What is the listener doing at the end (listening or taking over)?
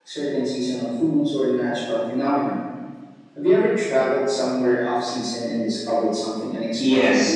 taking over